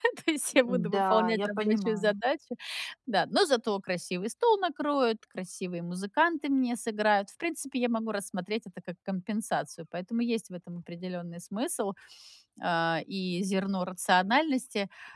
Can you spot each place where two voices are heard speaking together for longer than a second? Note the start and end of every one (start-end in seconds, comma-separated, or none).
0.6-2.1